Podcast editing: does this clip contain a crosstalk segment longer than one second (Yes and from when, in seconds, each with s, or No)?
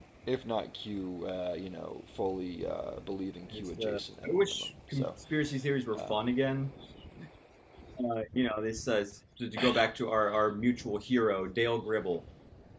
Yes, from 3.5 s